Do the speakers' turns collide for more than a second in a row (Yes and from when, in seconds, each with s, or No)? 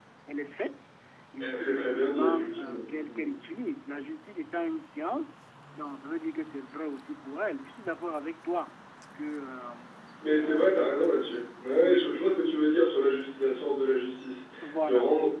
Yes, from 1.4 s